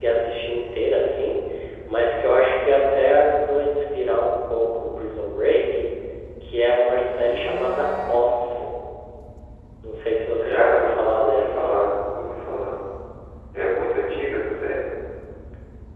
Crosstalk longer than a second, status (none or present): present